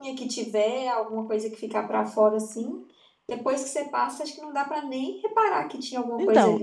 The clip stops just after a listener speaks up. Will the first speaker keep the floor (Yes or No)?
No